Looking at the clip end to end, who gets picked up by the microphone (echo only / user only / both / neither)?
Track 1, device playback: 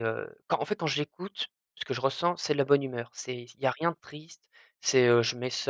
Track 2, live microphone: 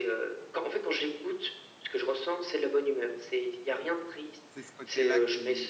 both